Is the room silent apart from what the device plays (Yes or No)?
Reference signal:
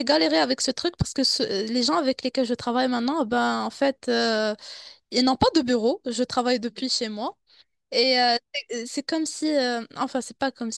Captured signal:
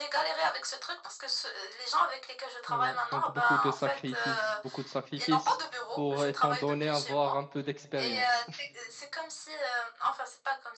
No